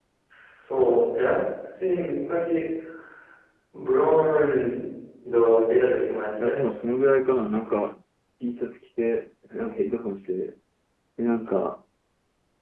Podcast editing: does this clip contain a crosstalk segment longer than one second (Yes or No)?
No